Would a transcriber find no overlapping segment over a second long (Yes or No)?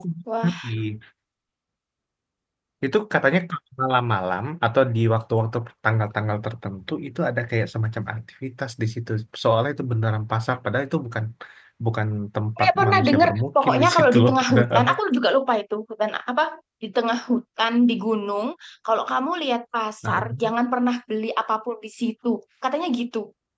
No